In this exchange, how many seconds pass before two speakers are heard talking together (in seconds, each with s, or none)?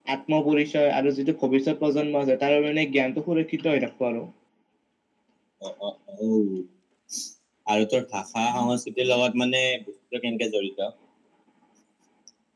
none